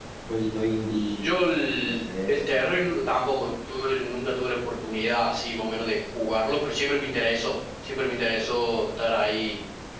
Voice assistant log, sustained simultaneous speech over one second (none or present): none